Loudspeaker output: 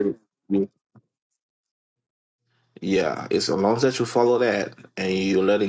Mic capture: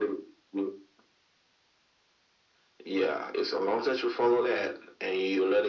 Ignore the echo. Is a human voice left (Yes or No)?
No